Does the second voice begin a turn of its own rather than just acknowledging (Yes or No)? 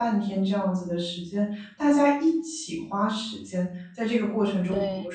No